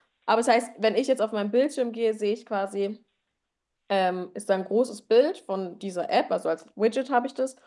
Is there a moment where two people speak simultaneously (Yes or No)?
No